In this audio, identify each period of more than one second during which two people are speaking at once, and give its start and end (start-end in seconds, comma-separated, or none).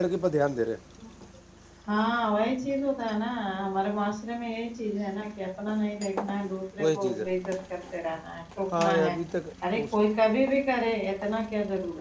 none